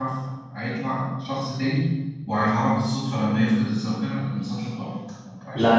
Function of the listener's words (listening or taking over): taking over